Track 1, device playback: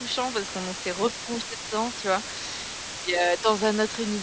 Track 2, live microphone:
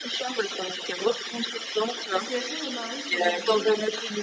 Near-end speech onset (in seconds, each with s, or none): 2.1 s